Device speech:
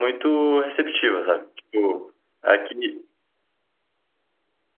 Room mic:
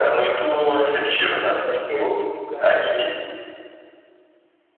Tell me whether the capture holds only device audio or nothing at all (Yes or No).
No